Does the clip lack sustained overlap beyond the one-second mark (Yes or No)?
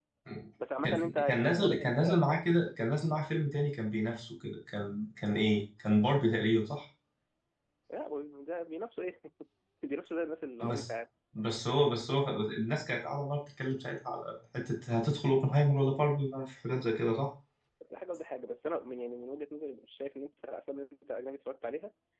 No